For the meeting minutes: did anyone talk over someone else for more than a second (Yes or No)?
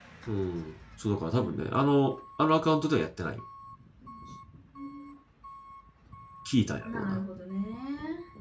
No